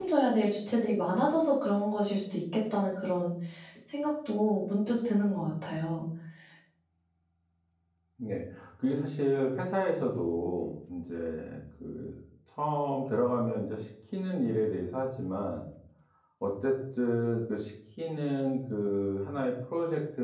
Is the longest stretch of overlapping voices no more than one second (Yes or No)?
Yes